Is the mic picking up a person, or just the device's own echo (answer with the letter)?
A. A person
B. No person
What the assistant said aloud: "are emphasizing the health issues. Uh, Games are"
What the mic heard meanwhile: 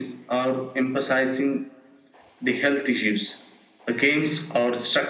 B